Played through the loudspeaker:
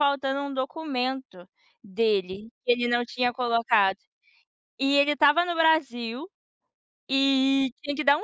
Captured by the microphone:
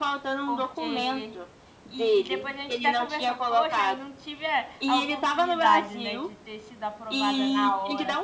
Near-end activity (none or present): present